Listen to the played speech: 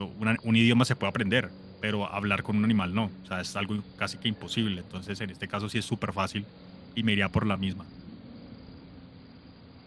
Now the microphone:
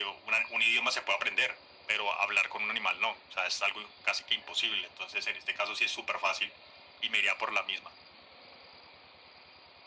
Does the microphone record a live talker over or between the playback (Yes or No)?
No